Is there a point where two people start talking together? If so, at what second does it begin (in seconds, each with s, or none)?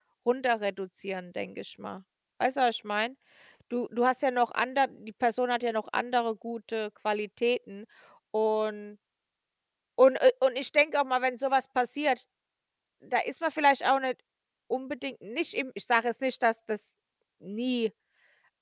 none